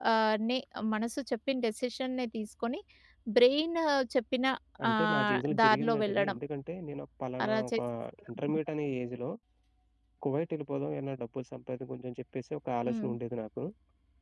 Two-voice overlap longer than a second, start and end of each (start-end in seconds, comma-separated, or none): 4.9-6.4